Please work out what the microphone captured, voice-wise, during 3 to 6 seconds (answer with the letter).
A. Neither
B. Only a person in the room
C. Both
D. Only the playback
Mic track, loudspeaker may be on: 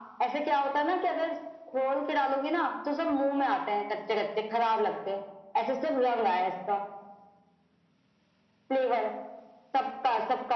D